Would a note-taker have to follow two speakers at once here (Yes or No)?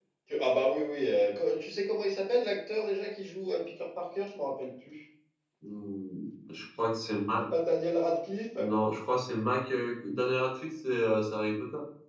No